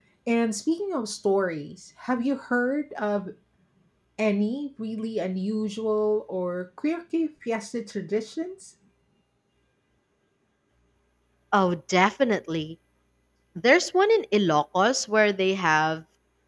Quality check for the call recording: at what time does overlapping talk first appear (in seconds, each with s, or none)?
none